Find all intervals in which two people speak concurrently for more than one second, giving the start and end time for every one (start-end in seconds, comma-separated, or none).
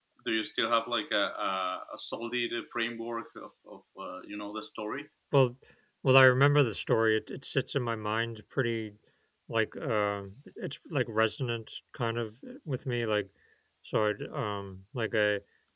none